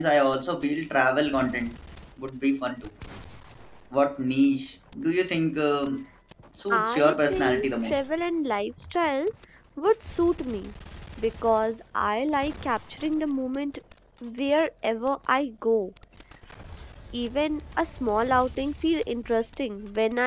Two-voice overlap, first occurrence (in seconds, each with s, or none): 6.7 s